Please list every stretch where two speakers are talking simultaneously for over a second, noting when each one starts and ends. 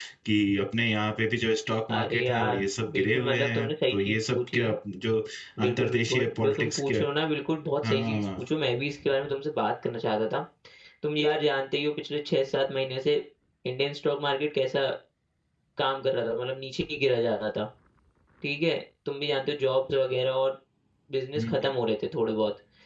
1.9-4.6, 5.6-7.0

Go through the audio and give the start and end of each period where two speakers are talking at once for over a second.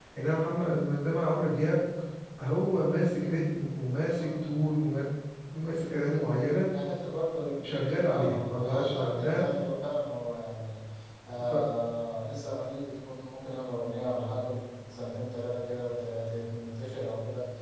8.0-9.4

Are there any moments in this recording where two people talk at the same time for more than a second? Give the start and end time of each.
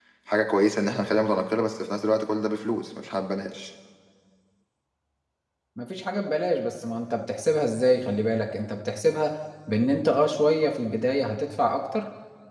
none

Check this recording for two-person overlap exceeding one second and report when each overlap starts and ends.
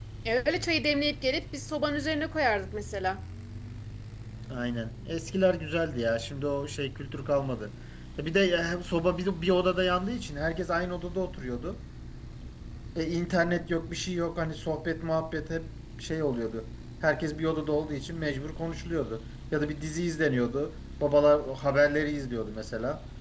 none

